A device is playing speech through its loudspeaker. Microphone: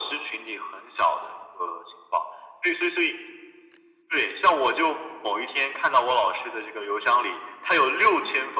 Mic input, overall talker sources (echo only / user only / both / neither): echo only